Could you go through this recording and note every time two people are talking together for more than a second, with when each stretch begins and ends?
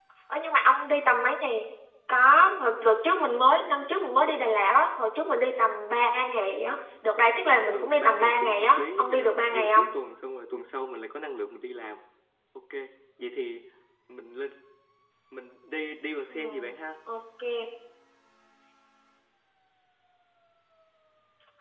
7.7-9.9

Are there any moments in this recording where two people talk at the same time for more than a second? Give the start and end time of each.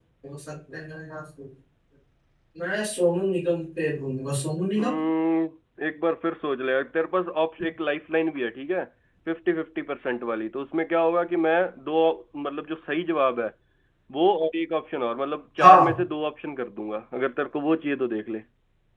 none

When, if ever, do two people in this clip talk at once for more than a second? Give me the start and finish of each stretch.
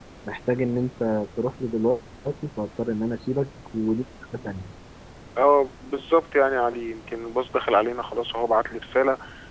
none

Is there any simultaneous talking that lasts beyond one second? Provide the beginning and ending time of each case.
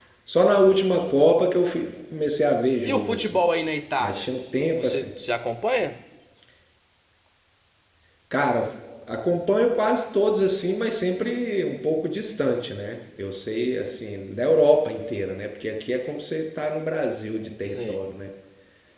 none

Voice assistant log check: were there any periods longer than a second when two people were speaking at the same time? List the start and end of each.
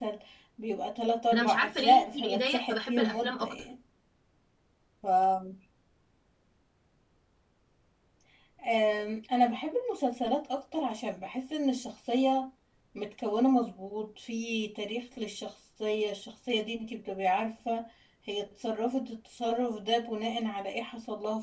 1.3-3.5

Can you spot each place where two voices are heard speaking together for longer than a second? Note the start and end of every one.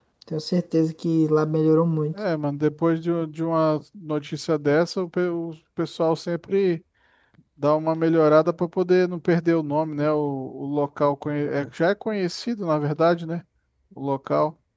none

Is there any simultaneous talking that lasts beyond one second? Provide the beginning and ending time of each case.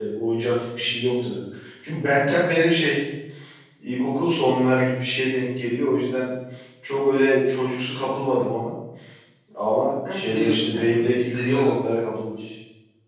10.1-11.7

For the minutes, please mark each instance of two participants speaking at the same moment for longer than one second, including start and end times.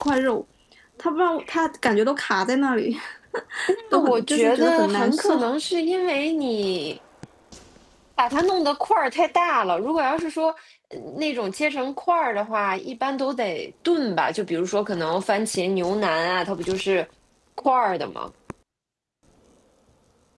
3.9-5.4

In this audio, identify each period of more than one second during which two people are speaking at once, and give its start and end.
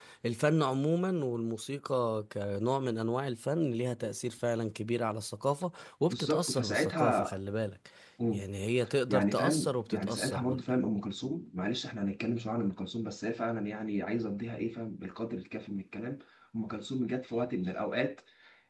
6.1-7.3, 9.1-10.6

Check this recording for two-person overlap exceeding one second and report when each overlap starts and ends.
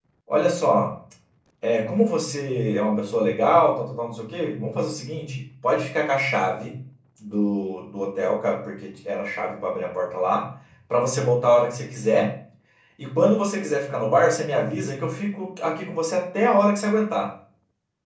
none

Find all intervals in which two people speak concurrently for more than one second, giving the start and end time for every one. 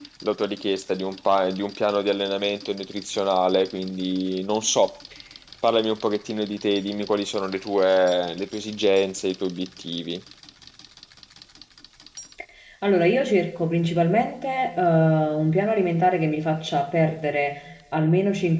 none

